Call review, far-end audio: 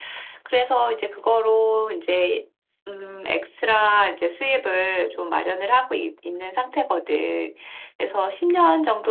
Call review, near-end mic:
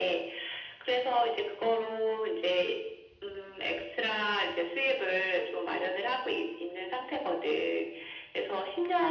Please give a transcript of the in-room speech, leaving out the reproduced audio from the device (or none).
none